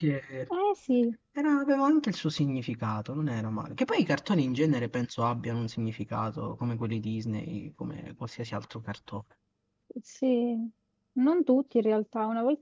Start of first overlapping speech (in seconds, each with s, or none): none